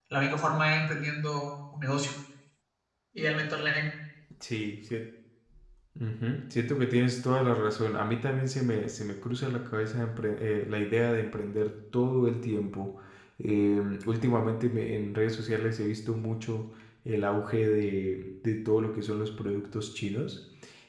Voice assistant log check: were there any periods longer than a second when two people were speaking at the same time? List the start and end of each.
none

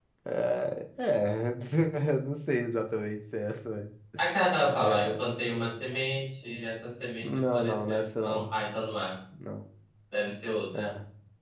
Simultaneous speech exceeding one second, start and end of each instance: 7.2-8.5

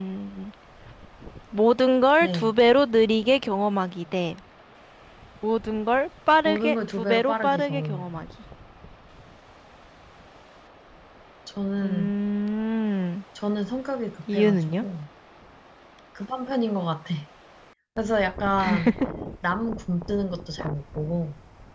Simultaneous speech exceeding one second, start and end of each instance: 6.5-8.2

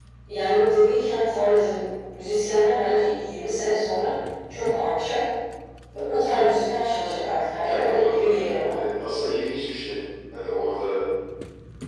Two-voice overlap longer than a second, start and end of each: 7.6-8.8

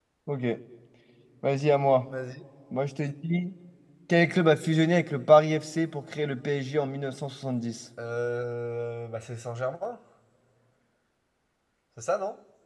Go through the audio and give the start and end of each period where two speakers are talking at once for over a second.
none

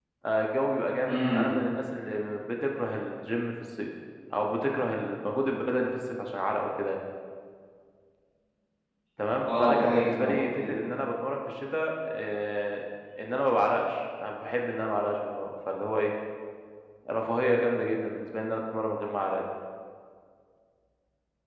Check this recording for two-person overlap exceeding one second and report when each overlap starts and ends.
9.4-10.8

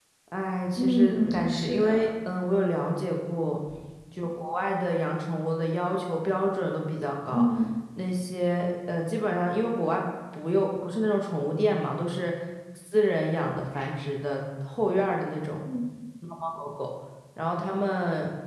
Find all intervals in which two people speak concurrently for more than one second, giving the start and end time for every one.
0.7-2.0

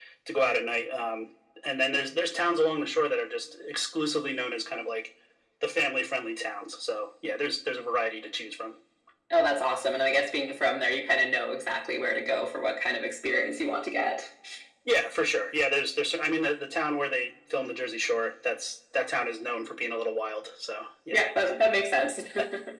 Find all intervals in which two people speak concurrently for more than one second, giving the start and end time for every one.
none

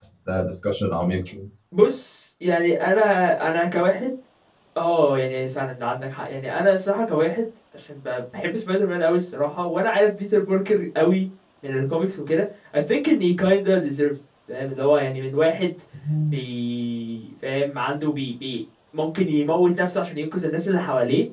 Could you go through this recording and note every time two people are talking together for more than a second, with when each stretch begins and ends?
none

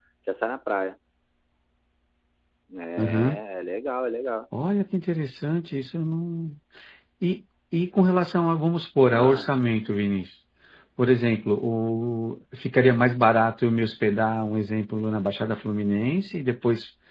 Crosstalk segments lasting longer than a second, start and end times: none

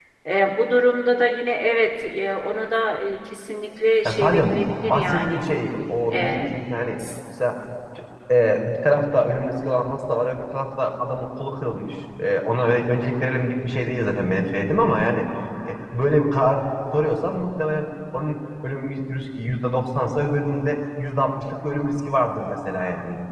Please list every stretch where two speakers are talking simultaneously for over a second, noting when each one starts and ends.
4.0-5.4

